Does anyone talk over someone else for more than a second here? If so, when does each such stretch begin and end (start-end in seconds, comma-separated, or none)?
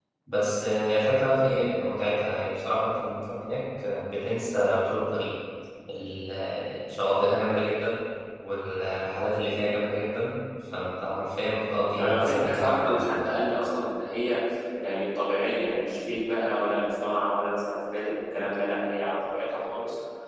12.0-13.2